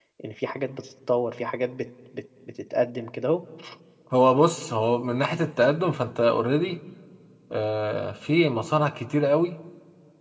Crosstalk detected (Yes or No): No